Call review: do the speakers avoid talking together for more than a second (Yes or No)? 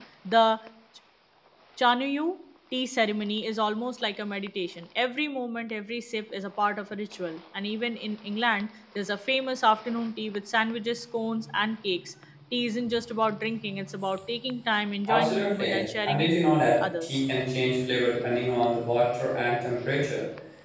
No